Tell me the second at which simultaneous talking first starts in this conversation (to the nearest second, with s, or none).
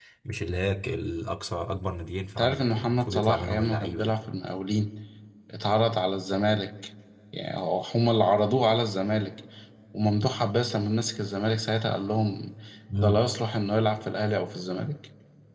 2 s